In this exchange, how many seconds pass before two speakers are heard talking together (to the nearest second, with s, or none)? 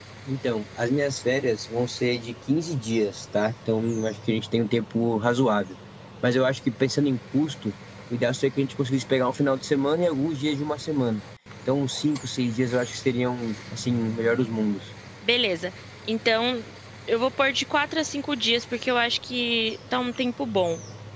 none